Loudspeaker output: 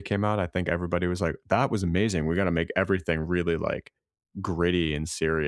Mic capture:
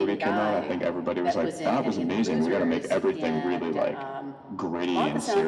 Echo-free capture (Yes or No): No